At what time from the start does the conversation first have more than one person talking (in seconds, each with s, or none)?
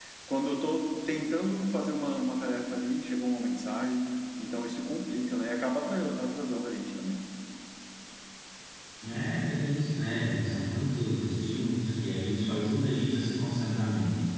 none